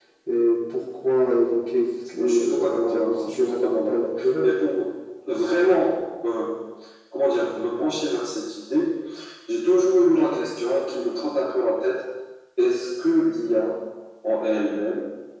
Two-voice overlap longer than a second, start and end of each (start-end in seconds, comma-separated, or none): 2.2-4.5